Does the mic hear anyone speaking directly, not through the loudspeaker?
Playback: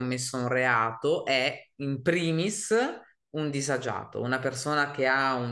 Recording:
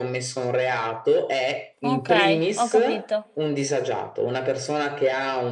Yes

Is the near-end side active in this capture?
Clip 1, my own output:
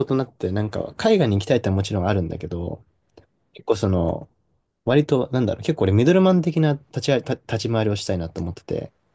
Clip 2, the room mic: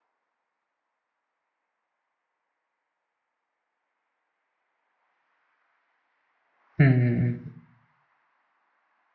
Yes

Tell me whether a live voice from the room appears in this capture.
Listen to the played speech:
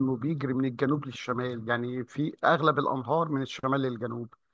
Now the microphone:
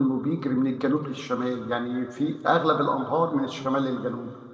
No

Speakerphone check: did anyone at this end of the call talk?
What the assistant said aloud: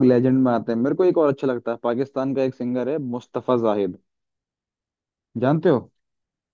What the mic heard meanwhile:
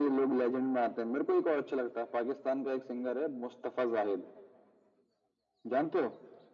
No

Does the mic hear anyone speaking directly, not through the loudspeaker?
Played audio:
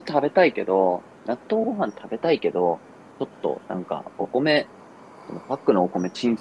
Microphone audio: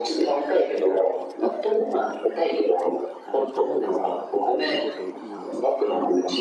Yes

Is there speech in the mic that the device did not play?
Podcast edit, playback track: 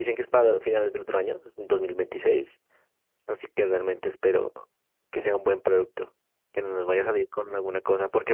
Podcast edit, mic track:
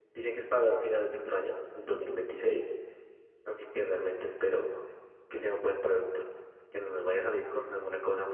No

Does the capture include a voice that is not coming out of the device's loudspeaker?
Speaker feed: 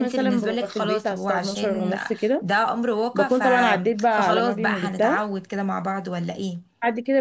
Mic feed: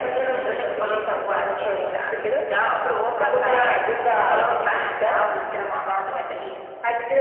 Yes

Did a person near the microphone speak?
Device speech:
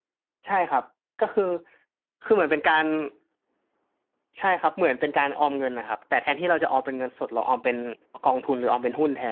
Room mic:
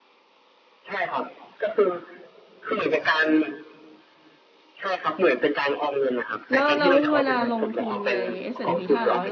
Yes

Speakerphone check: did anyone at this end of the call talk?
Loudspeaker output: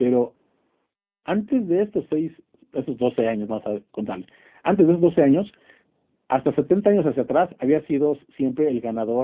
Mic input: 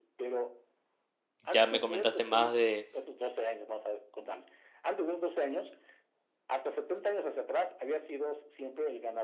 Yes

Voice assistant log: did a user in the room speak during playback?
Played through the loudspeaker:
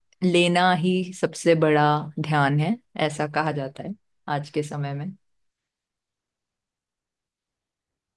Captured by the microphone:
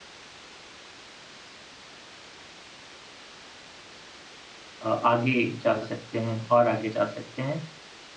Yes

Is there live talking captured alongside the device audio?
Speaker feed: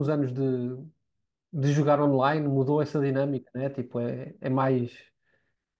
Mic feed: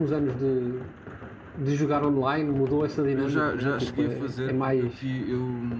Yes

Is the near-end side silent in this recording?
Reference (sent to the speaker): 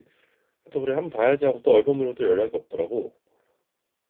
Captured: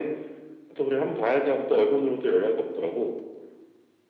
Yes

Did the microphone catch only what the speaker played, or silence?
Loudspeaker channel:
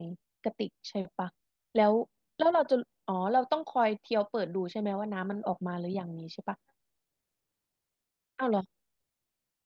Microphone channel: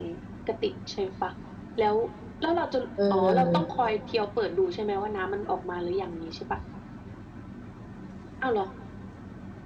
No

